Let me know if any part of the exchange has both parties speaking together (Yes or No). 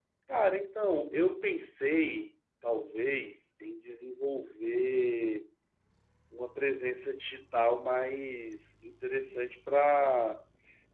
No